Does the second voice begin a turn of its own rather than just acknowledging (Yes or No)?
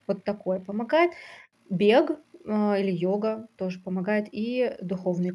Yes